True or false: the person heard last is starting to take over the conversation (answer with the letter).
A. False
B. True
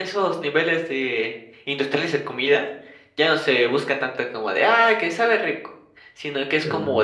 A